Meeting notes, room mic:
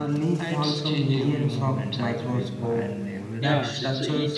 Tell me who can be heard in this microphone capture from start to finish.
both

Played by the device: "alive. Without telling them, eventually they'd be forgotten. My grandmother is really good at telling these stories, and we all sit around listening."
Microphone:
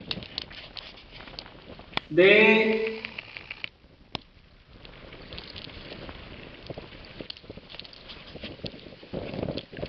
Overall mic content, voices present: user only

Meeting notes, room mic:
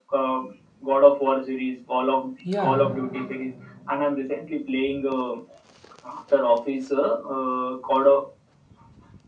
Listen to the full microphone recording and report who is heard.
both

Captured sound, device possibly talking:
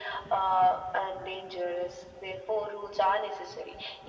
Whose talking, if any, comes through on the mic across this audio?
echo only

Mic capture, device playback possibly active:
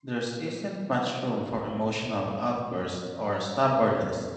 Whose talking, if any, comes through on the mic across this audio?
user only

